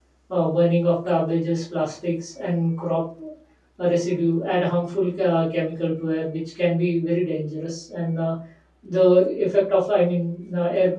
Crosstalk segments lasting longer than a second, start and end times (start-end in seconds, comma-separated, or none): none